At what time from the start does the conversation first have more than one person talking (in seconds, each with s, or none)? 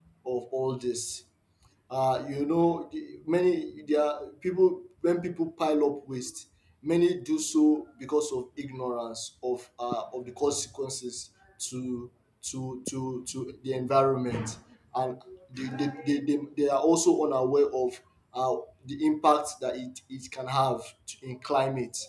none